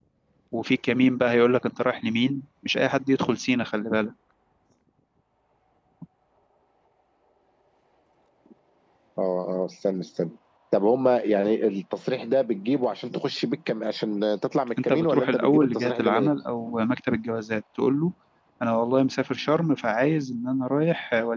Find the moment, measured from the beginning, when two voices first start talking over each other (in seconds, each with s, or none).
14.9 s